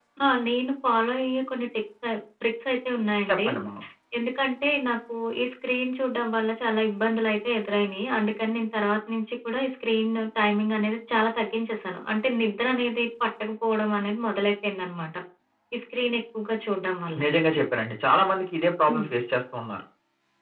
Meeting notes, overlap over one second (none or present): none